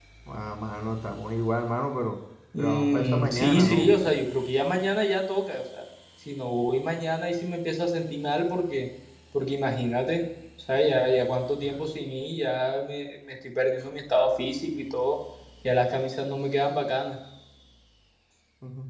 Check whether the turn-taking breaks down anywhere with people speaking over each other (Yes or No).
Yes